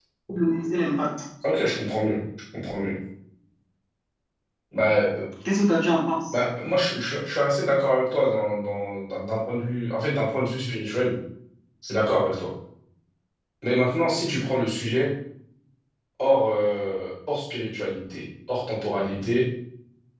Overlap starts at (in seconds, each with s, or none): none